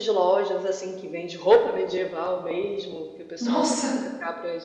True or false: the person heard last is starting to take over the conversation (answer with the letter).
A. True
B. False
B